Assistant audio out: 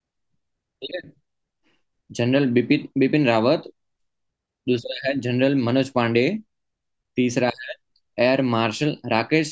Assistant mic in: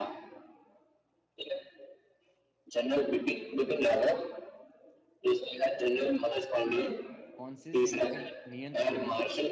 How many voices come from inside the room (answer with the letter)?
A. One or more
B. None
A